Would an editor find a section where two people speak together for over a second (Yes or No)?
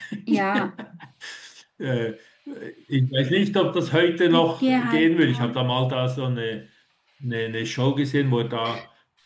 Yes